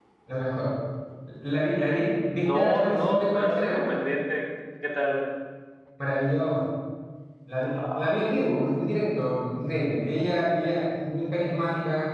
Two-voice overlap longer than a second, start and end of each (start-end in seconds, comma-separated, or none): 2.4-3.8